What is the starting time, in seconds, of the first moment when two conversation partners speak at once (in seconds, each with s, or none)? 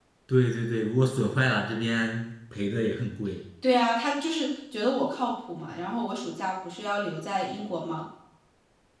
none